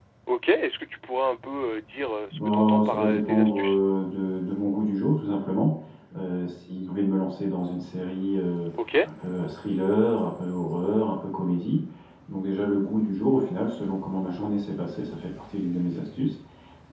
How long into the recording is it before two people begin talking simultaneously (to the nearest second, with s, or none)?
2 s